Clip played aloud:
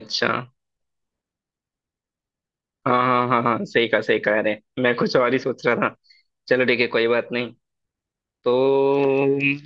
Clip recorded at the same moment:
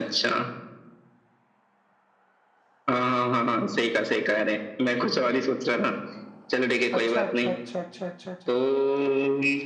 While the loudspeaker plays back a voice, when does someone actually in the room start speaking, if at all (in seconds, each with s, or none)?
7.0 s